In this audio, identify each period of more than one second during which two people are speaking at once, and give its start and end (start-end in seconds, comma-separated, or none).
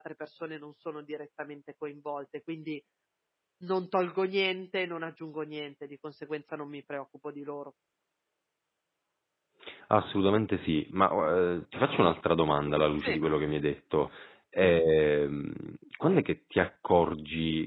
none